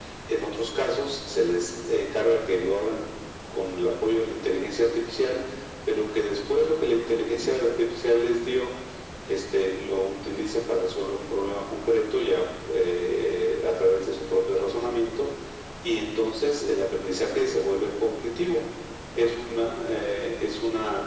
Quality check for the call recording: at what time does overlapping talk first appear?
none

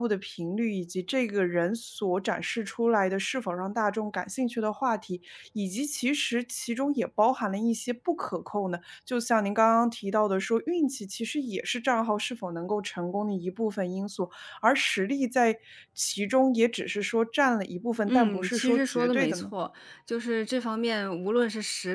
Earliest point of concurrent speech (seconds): 18 s

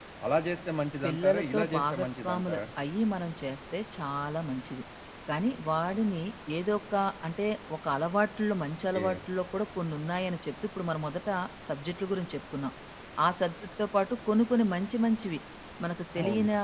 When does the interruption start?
1 s

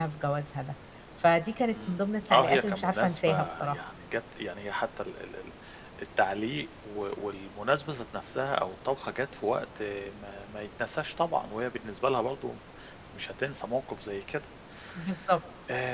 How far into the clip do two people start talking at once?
2 s

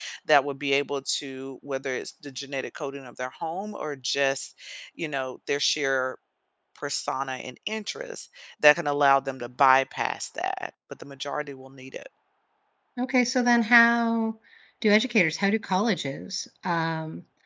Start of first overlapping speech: none

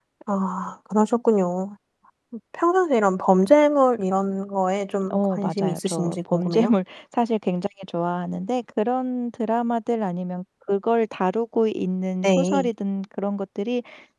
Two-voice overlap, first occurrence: 5 s

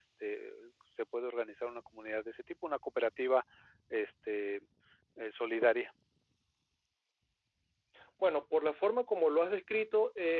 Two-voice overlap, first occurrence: none

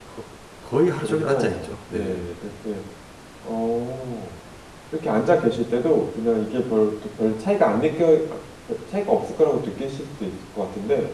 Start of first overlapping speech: 1 s

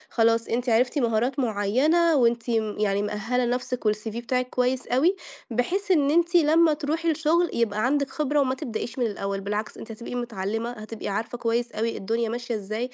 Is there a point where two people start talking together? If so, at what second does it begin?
none

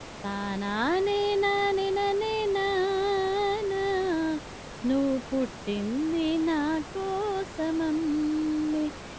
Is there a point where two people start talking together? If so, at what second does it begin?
none

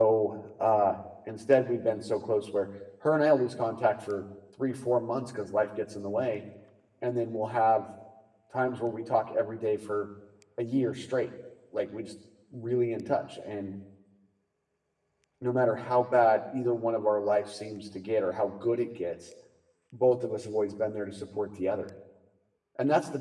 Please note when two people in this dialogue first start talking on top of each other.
none

